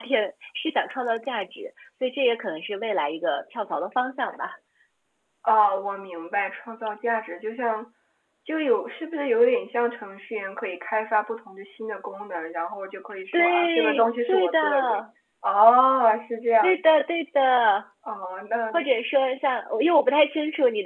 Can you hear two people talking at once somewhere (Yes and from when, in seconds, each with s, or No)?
Yes, from 13.3 s